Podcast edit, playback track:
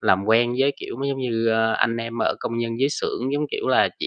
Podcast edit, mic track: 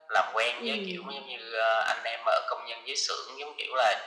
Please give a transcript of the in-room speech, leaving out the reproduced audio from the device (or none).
ừm.